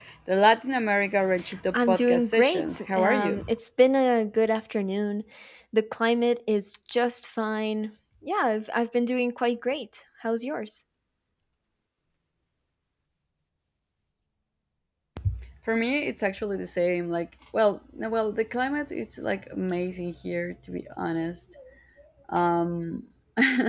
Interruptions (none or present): present